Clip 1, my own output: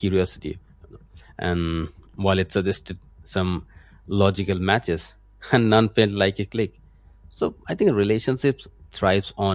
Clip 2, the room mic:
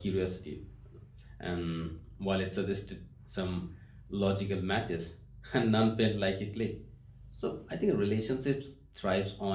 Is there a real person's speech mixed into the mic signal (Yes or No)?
No